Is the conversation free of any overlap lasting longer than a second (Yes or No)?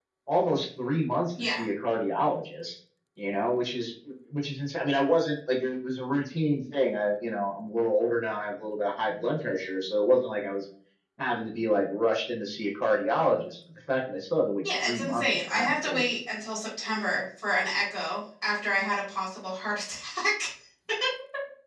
No